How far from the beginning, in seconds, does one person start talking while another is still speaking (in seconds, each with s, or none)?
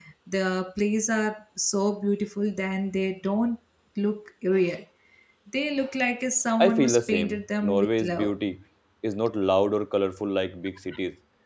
6.6 s